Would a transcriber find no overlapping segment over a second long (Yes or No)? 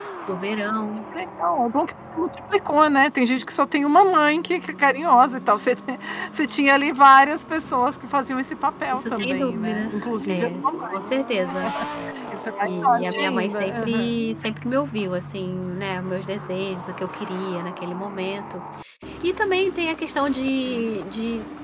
No